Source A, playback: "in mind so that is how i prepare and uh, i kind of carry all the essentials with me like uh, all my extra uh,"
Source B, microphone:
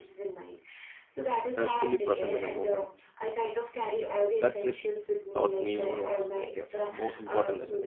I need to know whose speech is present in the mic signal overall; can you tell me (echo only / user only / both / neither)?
both